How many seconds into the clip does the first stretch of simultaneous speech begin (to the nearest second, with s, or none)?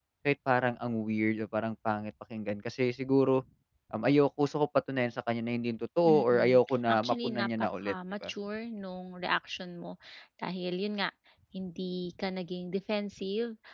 6 s